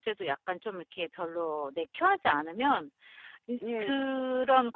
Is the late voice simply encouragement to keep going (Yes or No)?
Yes